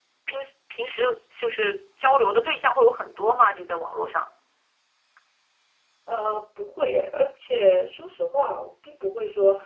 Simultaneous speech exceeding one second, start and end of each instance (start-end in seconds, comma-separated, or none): none